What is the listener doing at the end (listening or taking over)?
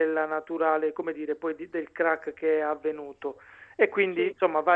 listening